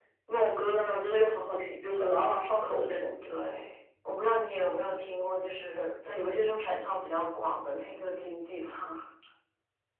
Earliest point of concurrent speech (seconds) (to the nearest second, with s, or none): none